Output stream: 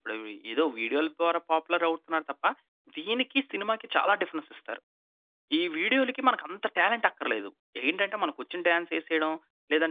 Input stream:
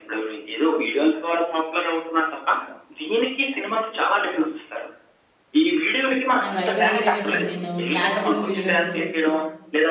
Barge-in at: 6.4 s

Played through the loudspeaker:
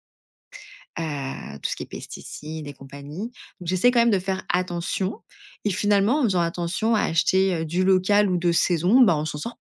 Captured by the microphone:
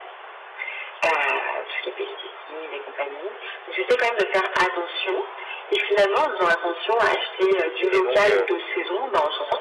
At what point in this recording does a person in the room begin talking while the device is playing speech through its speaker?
7.9 s

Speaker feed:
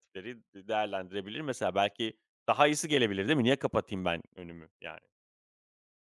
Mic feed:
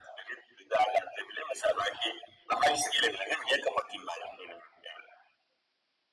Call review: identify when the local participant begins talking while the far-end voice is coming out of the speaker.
none

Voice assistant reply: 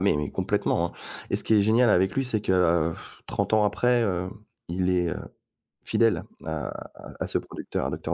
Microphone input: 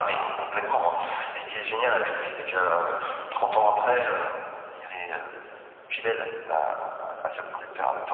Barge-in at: none

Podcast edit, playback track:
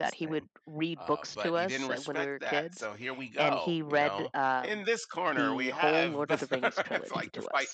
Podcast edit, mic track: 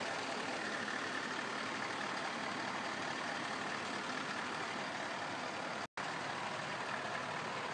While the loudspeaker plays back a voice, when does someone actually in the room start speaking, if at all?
none

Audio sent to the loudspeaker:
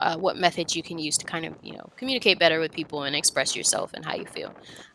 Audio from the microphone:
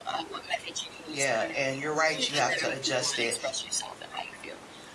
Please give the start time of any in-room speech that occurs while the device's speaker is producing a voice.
1.1 s

